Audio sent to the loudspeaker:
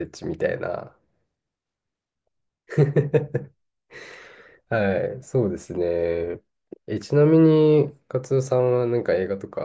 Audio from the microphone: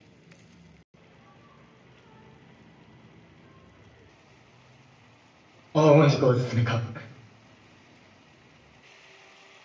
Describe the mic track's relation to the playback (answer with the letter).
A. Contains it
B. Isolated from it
B